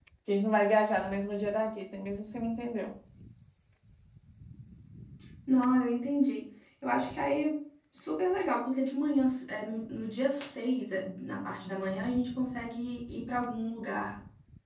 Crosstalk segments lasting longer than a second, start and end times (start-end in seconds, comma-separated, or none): none